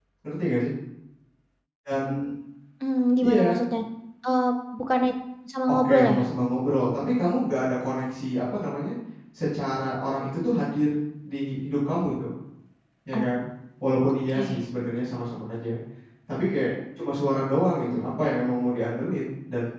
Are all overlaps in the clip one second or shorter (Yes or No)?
Yes